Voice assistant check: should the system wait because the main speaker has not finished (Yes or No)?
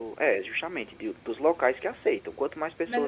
No